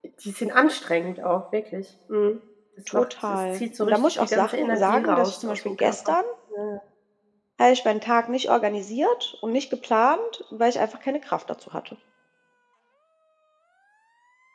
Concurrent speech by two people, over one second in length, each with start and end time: 2.9-6.1

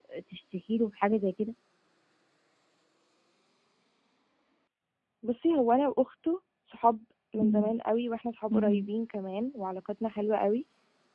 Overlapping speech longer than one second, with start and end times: none

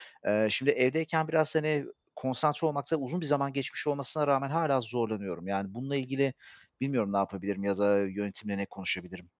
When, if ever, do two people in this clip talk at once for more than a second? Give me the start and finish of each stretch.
none

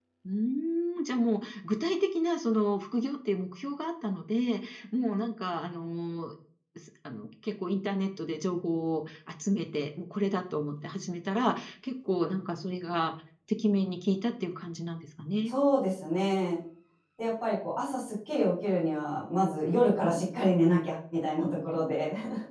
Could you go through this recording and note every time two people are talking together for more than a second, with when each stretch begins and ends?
none

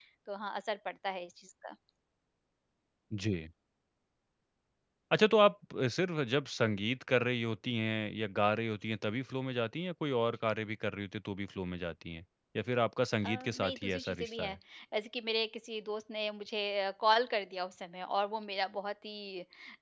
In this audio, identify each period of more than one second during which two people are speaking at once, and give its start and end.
13.2-14.6

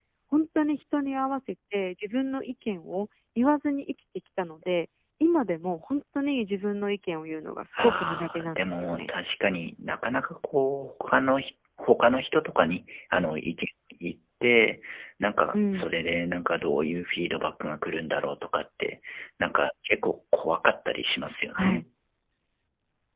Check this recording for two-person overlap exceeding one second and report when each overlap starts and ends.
7.8-9.1

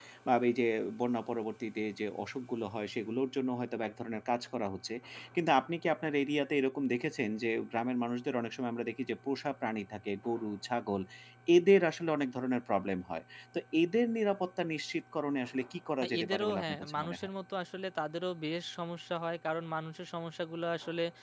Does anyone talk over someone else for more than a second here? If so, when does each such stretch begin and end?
16.0-17.3

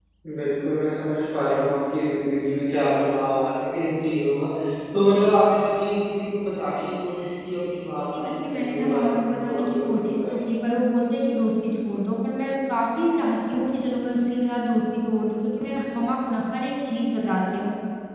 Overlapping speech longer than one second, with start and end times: 8.1-10.3

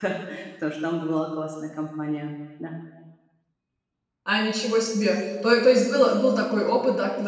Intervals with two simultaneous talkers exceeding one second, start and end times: none

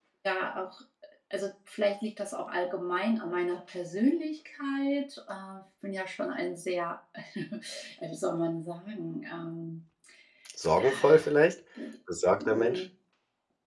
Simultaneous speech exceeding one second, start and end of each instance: none

